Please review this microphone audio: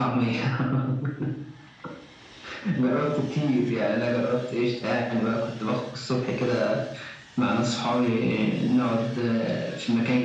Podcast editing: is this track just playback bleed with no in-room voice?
Yes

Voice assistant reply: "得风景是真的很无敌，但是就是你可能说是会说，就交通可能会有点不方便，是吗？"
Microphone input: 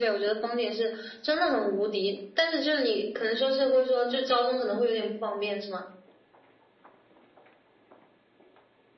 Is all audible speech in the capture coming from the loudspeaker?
Yes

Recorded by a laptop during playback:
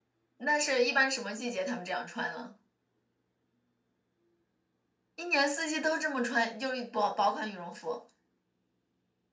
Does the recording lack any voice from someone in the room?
Yes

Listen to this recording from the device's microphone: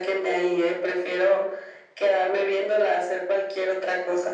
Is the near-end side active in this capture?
No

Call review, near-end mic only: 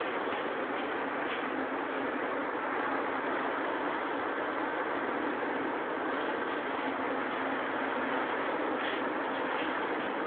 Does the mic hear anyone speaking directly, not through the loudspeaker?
No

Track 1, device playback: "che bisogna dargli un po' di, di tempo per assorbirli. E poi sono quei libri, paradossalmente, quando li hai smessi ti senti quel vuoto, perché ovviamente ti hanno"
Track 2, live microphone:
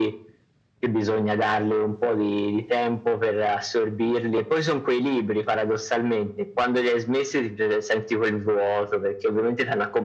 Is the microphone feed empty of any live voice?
Yes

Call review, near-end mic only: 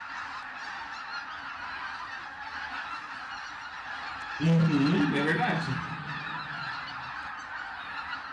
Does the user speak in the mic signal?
Yes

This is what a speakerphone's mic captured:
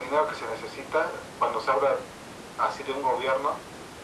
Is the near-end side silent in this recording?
Yes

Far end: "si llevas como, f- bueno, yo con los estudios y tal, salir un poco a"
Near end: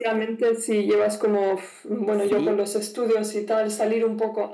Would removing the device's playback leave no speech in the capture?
No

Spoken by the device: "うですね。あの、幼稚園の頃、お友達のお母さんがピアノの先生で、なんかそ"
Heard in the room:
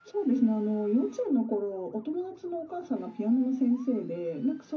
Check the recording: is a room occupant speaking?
No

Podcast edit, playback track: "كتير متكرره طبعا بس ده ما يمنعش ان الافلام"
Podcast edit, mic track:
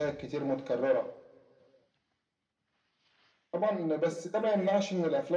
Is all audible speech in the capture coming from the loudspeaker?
Yes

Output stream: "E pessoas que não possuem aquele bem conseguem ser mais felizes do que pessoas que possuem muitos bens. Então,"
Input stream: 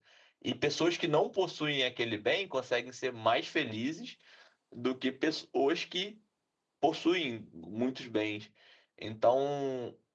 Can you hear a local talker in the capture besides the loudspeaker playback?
No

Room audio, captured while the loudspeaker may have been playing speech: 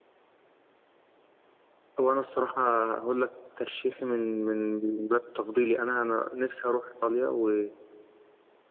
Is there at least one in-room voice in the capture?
Yes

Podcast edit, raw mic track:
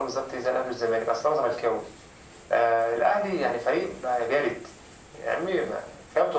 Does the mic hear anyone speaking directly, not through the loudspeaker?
No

